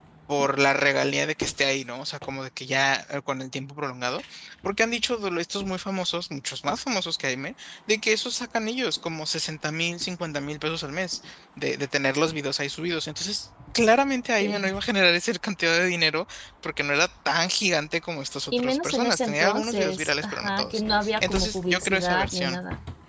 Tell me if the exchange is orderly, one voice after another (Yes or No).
No